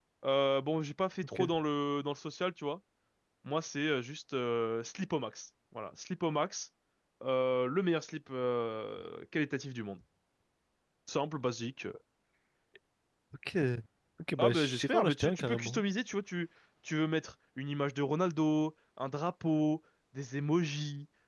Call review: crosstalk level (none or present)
present